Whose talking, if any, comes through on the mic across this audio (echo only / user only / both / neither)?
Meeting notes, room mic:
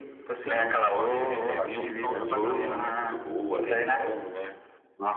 both